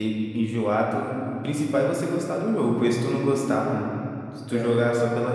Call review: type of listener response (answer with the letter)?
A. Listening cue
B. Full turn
A